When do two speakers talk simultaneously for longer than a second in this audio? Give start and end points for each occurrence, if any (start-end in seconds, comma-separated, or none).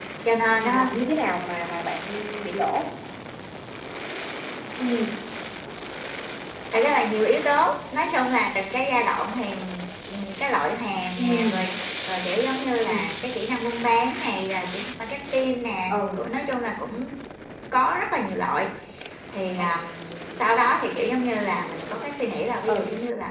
none